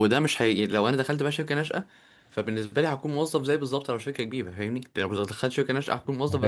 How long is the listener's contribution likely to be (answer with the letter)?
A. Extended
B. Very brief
A